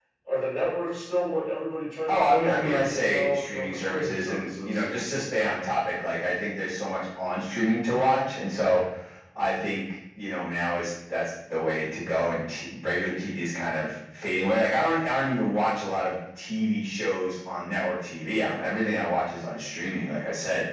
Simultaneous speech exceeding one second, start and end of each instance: 2.1-4.8

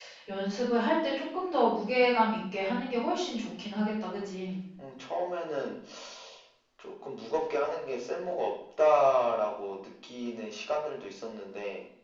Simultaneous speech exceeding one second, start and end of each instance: none

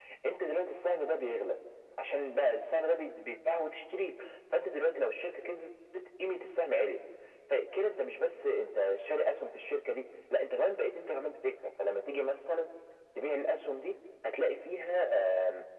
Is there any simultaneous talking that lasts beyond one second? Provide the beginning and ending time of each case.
none

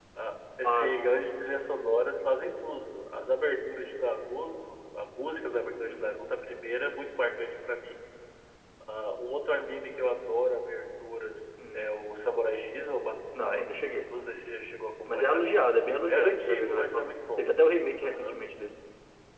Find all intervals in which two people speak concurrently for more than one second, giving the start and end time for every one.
16.1-17.5

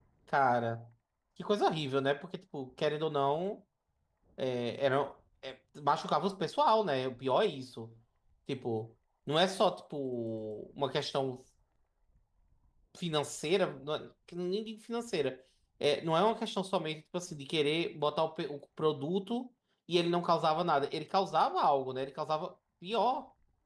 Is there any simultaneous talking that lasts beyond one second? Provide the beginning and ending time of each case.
none

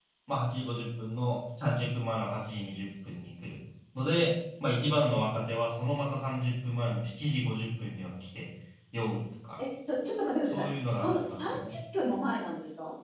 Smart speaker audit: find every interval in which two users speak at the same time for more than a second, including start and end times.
10.5-11.8

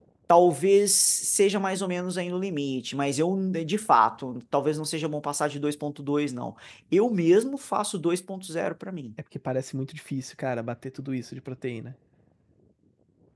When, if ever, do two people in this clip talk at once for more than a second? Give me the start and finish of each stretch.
none

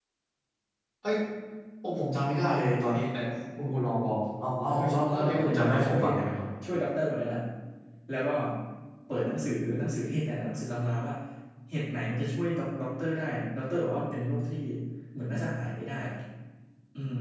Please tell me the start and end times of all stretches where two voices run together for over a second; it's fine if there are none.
4.7-6.0

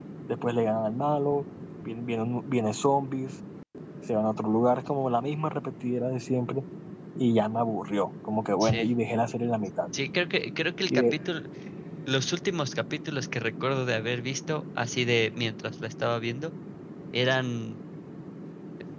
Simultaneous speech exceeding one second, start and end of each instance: none

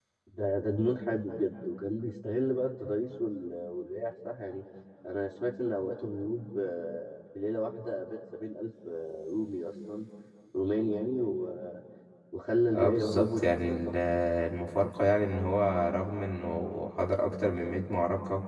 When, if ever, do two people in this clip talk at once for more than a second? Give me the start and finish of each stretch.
12.7-13.9

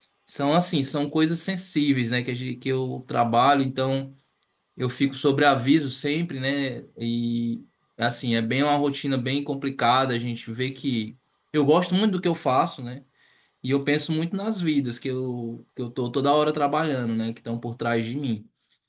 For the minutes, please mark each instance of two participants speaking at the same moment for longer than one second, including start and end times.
none

